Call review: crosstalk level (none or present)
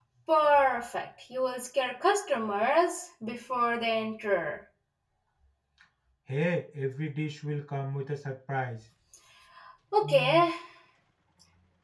none